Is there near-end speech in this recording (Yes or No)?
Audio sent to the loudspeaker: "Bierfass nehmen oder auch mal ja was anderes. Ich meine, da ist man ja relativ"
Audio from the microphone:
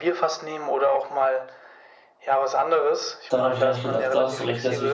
Yes